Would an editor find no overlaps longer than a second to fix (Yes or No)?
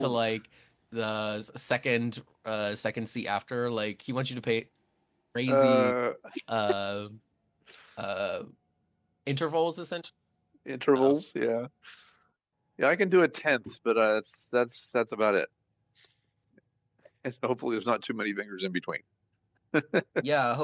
Yes